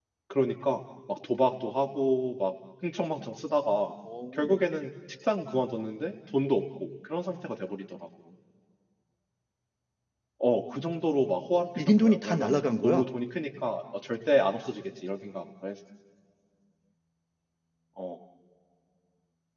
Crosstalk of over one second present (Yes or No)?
Yes